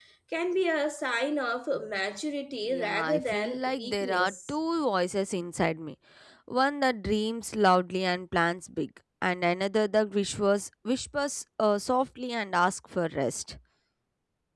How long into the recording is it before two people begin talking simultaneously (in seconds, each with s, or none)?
2.7 s